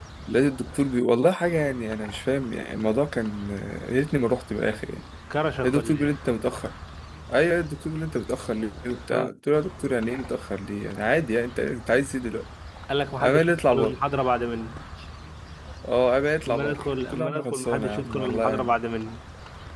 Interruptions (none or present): present